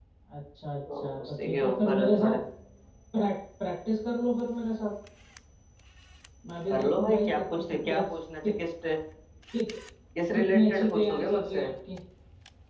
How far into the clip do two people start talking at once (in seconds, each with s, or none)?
0.9 s